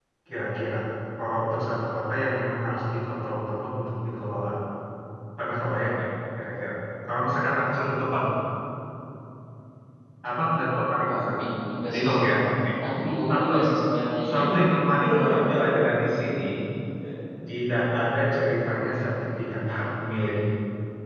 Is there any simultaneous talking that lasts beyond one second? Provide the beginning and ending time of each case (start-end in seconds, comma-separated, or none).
none